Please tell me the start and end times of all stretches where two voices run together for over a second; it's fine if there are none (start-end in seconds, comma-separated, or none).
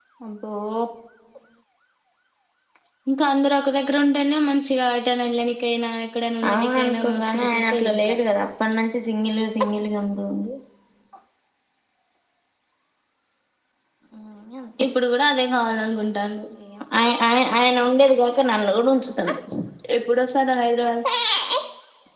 6.5-8.2